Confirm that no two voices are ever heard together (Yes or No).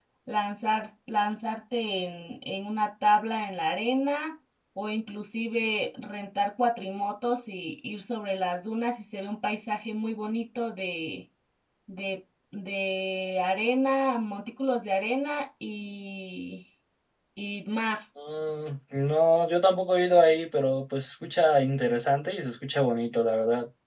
Yes